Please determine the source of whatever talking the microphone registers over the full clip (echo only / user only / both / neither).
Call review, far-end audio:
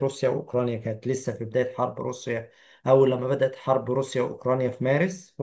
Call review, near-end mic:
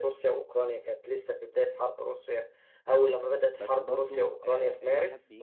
both